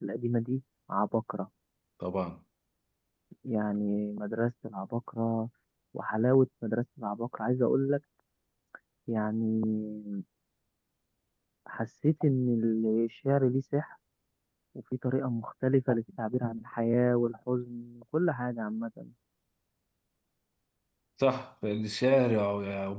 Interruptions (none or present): none